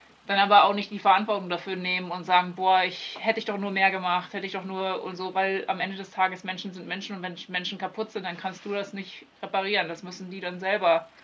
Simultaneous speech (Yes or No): No